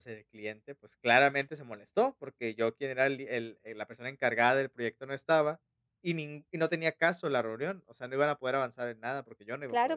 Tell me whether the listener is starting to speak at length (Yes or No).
Yes